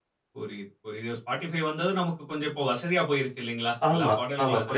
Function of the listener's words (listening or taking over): taking over